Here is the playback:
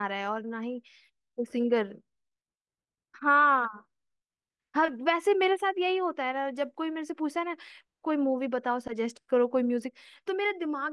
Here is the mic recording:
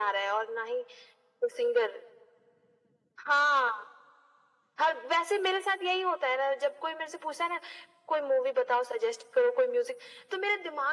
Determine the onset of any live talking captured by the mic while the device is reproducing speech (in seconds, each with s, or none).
none